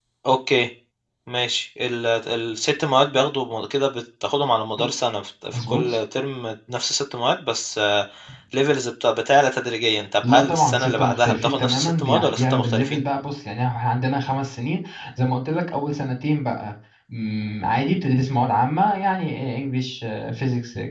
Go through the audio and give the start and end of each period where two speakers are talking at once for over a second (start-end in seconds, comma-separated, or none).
10.3-13.0